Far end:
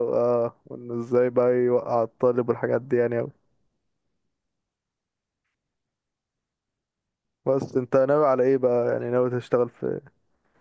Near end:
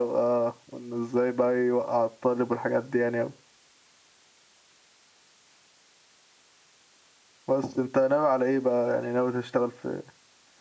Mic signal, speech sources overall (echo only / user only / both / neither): echo only